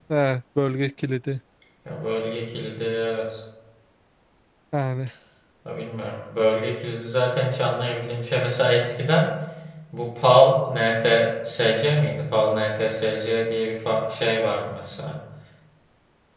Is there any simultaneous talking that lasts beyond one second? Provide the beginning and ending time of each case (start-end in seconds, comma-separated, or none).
none